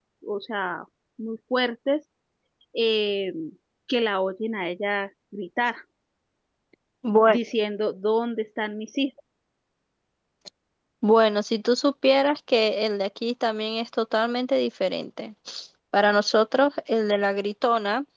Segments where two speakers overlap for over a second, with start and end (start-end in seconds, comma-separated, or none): none